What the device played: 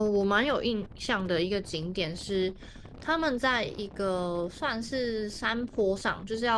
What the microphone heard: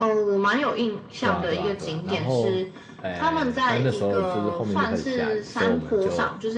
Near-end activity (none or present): present